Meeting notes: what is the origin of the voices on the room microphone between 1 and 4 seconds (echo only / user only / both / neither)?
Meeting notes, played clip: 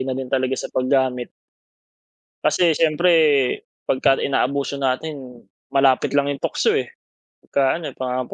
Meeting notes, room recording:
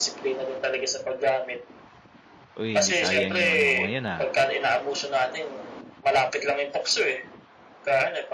both